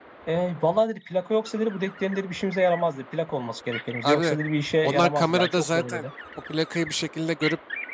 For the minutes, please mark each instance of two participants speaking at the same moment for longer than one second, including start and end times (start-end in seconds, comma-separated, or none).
4.8-6.0